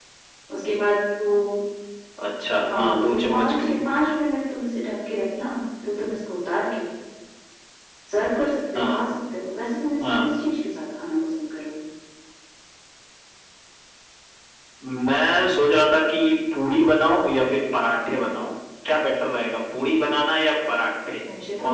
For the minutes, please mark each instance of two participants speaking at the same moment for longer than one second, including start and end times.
2.6-3.9

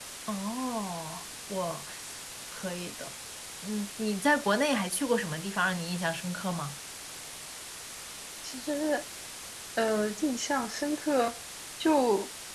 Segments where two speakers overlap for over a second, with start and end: none

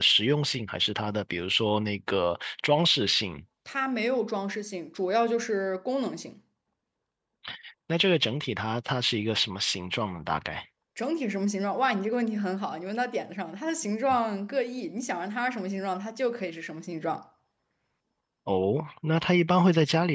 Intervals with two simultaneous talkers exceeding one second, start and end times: none

